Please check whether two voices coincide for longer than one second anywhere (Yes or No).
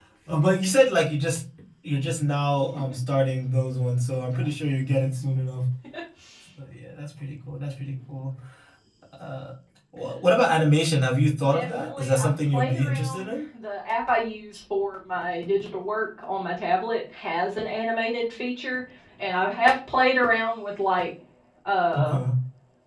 Yes